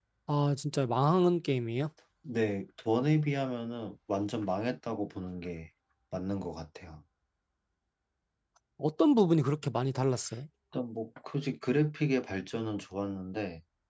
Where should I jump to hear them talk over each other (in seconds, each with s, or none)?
none